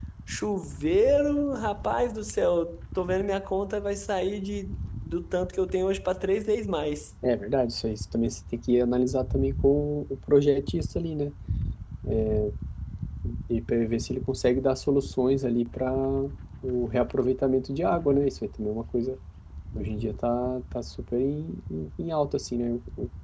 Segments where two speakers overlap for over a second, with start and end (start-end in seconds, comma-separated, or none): none